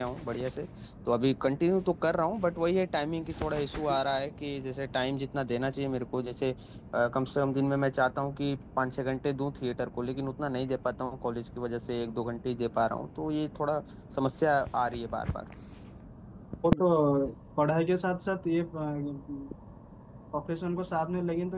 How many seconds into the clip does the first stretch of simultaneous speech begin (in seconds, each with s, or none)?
none